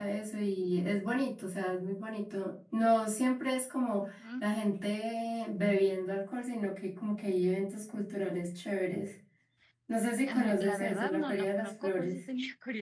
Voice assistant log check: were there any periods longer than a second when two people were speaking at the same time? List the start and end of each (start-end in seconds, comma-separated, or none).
10.3-12.2